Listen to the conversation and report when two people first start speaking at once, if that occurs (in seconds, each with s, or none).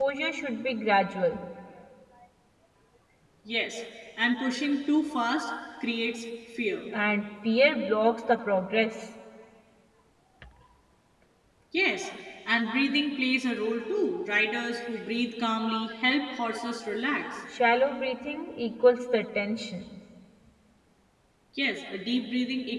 none